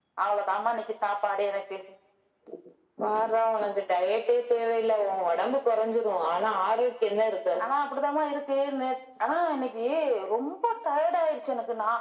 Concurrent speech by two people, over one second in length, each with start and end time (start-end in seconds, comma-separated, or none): none